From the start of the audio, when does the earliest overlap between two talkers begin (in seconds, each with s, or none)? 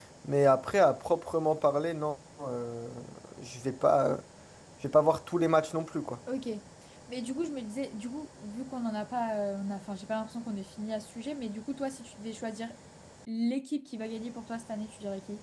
none